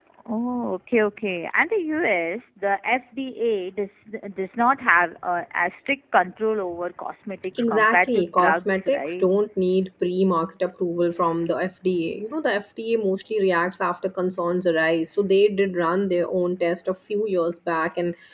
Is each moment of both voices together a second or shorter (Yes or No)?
No